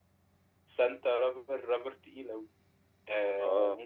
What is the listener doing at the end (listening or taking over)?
listening